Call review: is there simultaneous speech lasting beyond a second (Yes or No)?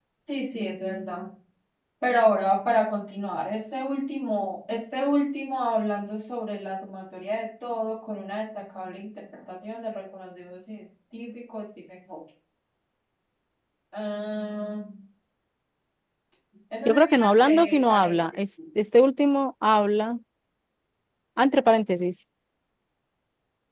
Yes